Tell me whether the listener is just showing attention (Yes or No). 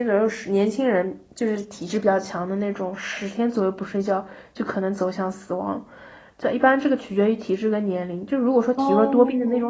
Yes